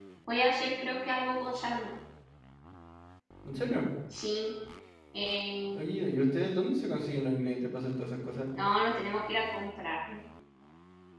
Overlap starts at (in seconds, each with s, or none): none